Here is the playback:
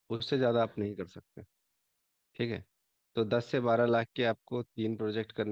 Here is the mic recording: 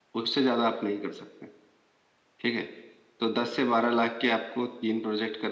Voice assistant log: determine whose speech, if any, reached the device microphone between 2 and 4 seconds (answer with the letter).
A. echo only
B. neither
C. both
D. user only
A